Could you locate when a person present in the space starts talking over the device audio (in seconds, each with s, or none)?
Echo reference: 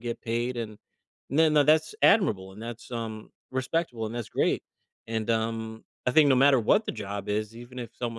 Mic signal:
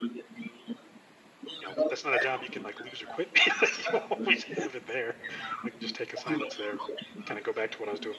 1.6 s